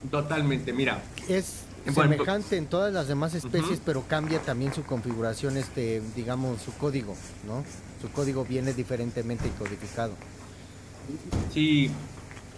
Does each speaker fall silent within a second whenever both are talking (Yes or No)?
Yes